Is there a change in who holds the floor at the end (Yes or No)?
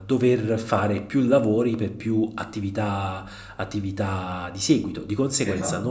No